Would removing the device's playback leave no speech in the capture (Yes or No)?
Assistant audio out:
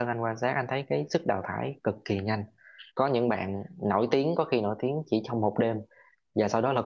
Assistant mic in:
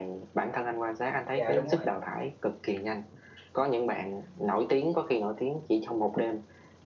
No